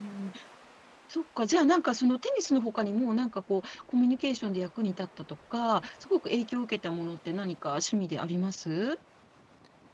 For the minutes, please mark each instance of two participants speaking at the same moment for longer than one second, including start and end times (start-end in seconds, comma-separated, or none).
none